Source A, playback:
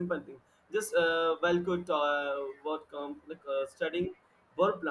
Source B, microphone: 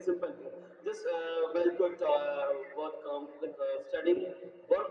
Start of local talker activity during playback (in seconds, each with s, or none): none